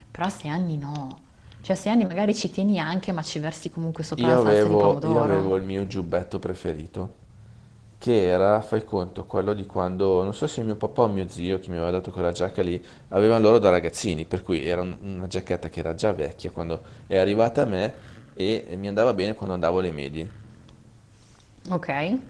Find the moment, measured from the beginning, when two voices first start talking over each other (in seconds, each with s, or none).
4.2 s